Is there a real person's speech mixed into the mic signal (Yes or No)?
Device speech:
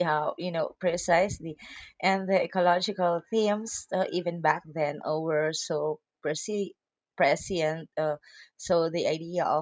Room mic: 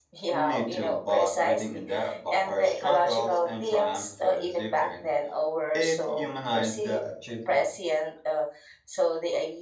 Yes